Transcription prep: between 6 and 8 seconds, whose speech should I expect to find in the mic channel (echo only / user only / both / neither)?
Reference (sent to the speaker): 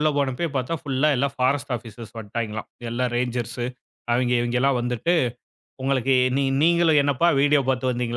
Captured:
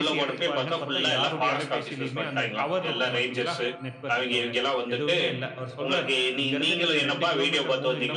both